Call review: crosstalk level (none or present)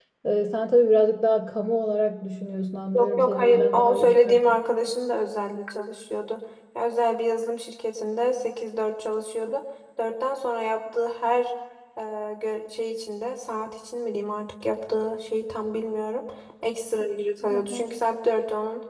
present